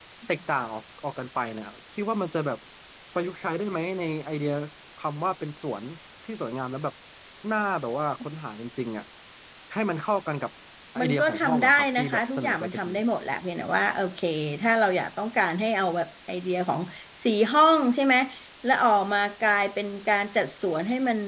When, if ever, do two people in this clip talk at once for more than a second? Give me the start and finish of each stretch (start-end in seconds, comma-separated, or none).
11.0-12.9